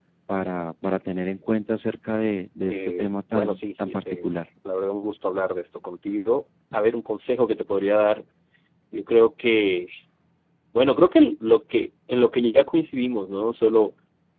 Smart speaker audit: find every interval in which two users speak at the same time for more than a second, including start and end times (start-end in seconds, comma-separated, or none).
2.7-4.3